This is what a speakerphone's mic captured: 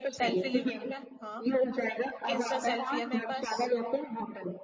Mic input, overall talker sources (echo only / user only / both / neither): both